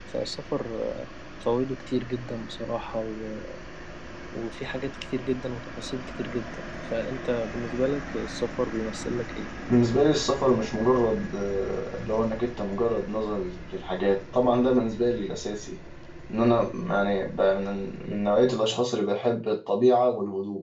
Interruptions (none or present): none